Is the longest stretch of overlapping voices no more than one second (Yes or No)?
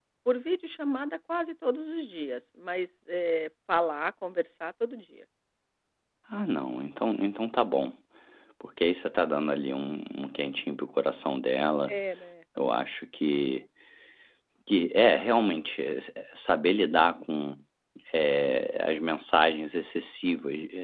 Yes